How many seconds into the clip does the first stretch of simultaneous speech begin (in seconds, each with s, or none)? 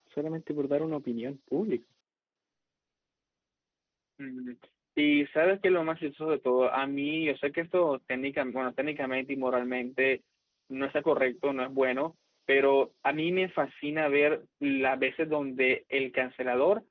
none